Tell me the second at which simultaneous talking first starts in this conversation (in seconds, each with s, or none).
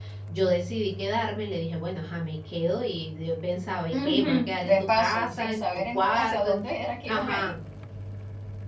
3.9 s